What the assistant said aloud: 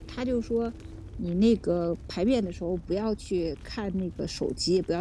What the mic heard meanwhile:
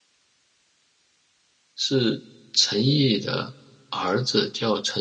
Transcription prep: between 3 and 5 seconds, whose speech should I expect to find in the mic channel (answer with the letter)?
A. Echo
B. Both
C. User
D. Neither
C